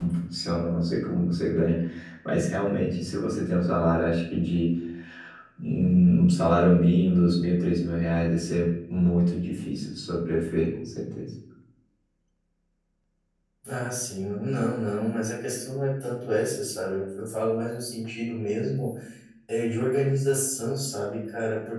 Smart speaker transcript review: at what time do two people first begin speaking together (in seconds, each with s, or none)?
none